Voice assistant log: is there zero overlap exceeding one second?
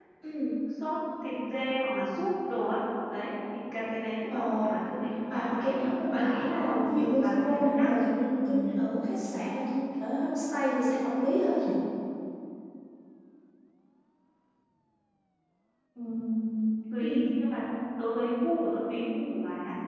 No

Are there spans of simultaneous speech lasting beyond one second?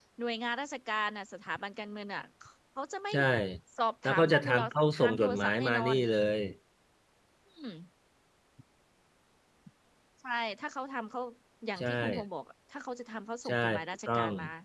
Yes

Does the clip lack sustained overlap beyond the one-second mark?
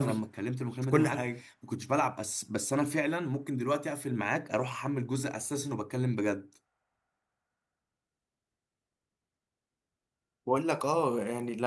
Yes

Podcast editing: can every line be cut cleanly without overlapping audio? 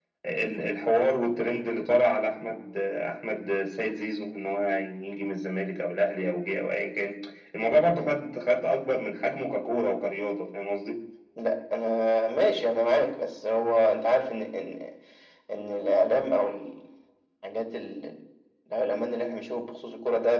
Yes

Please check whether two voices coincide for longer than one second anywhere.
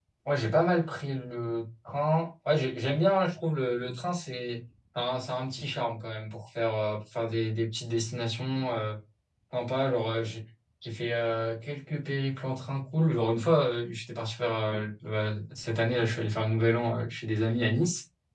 No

